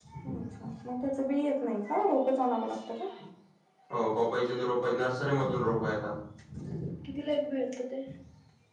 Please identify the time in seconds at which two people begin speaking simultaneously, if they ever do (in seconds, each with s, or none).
none